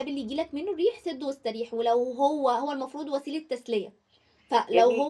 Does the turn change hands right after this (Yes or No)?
Yes